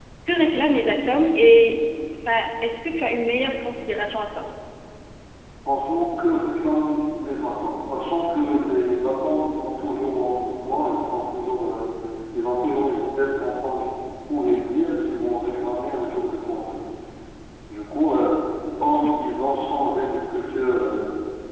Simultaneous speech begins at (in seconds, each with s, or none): none